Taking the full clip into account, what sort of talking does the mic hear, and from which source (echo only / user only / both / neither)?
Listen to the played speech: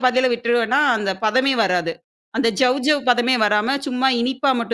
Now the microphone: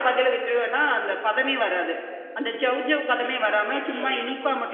both